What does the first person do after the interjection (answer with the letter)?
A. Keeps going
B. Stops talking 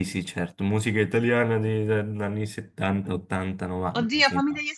B